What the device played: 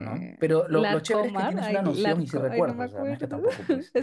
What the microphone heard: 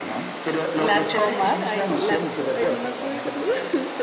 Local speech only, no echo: none

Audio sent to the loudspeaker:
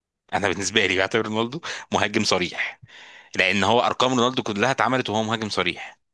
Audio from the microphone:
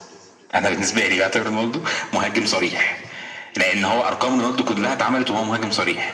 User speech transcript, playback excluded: none

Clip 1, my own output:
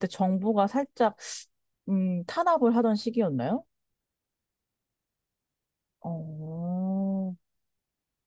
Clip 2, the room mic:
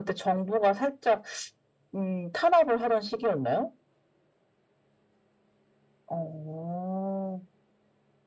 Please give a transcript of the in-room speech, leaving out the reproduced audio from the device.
none

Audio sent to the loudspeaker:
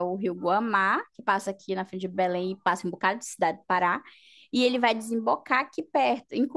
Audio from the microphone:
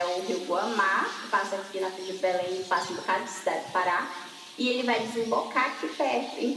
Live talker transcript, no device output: none

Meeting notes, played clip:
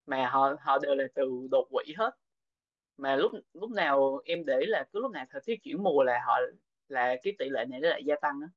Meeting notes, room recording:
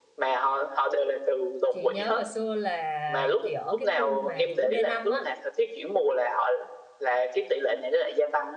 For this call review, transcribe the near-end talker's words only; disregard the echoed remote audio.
chị nhớ hồi xưa là chị ở cái khu mà kiểu D5 á,

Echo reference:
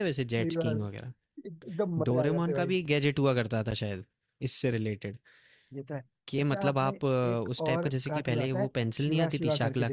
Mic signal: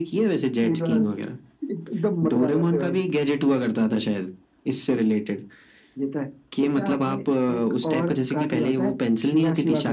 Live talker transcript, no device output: none

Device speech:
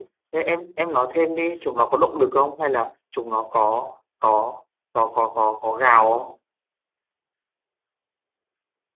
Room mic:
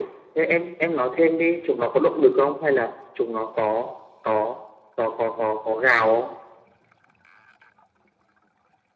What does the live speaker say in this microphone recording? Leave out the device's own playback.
none

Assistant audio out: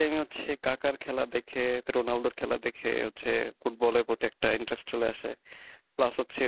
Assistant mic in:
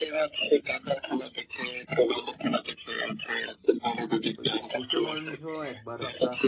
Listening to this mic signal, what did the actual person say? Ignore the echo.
ওই হোসে মরিনহো একবার একটা

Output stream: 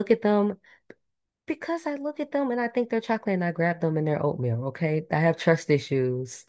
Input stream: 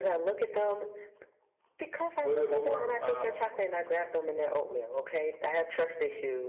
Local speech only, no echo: wait, wait, one more. Um,

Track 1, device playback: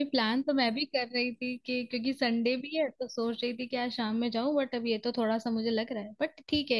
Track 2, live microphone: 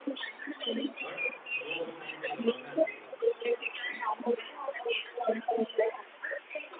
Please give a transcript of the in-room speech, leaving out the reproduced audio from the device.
बट जो उस टाइम पे गवर्नर थे

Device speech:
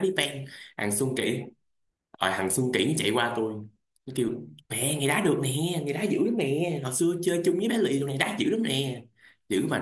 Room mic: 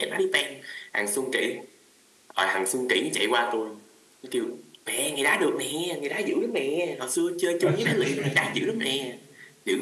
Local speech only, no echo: ok

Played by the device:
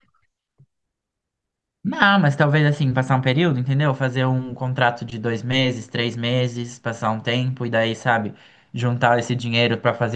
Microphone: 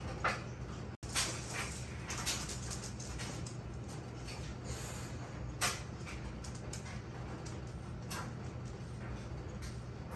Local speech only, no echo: none

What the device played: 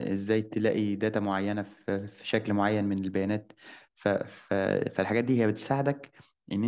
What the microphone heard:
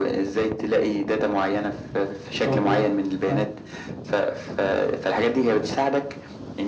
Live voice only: اه تمام فاهم.

